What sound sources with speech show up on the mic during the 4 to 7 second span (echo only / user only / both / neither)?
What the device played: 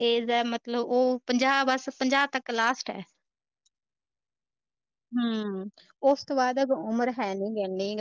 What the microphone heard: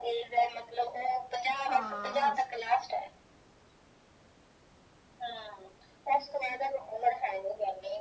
echo only